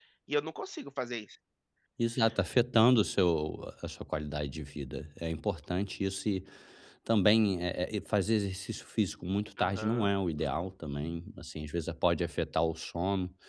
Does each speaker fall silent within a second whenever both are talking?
Yes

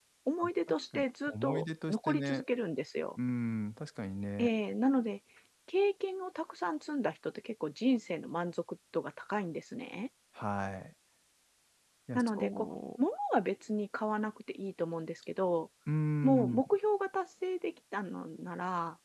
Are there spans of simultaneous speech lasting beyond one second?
Yes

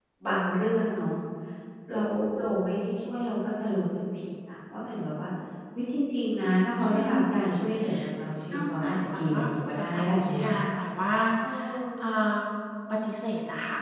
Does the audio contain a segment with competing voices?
Yes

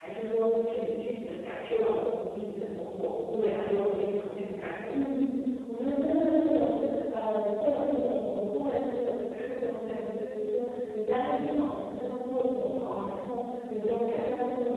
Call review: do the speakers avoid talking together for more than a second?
Yes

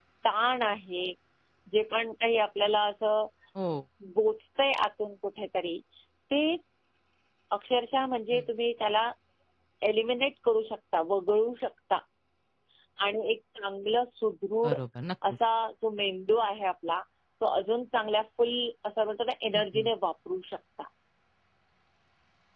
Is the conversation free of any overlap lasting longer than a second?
Yes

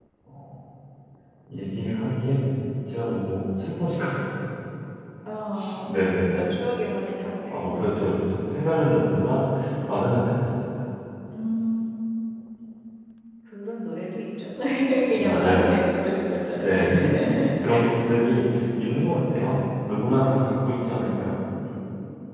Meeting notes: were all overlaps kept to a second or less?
No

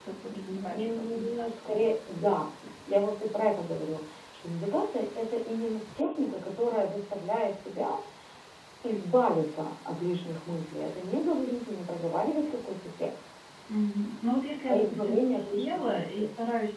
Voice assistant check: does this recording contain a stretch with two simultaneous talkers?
Yes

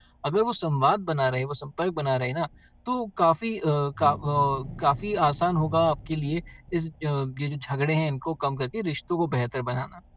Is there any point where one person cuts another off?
No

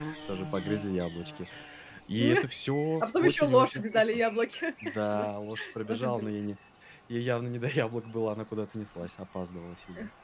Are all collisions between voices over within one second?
No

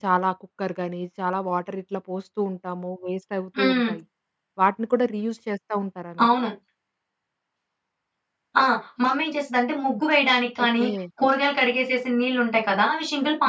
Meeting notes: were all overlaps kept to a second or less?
Yes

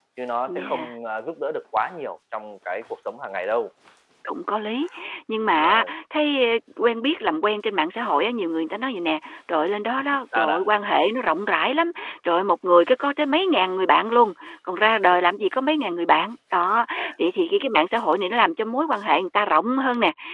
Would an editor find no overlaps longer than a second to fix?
Yes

